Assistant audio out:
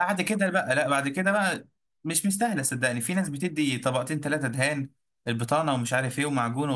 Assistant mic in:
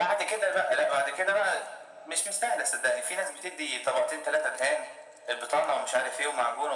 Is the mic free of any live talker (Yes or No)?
Yes